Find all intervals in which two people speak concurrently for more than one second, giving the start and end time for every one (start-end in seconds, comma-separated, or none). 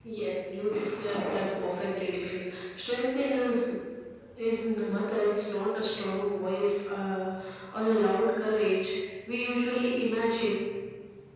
none